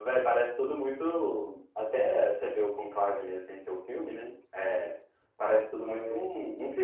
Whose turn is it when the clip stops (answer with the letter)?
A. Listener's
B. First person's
B